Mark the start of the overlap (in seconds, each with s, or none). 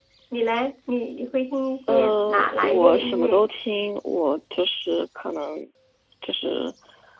1.9 s